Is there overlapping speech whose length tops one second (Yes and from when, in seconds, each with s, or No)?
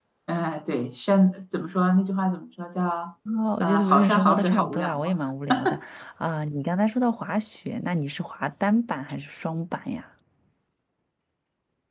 Yes, from 3.6 s